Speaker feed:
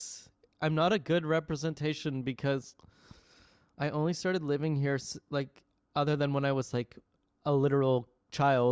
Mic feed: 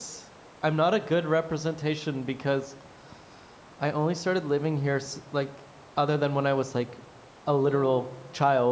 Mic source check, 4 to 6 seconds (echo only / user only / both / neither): echo only